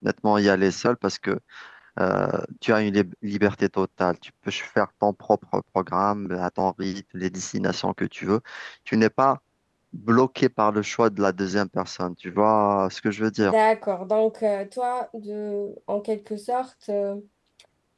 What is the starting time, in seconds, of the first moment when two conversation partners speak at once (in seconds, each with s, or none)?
none